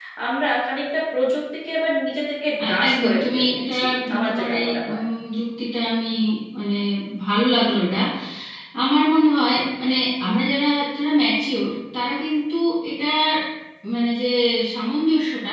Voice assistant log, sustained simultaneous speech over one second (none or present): present